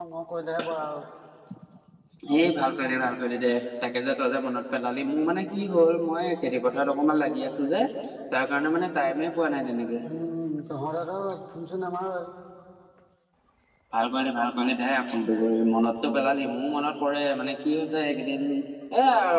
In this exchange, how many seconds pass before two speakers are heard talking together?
none

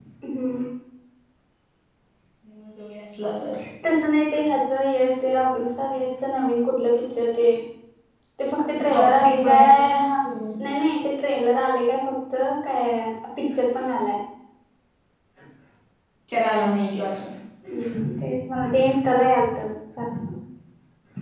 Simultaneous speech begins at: 9 s

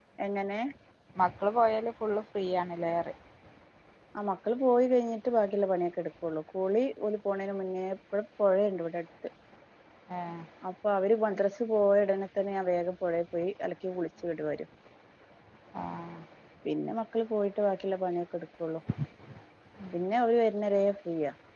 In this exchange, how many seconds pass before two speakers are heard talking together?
none

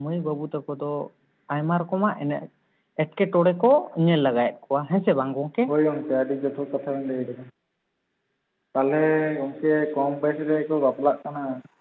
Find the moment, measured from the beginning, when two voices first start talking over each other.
none

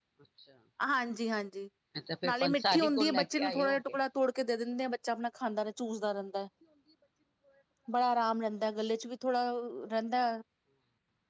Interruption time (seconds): 2 s

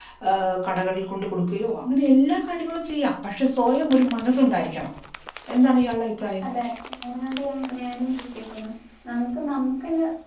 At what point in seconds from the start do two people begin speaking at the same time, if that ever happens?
none

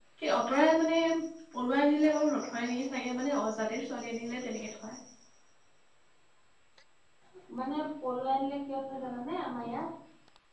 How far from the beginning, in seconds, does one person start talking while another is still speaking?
none

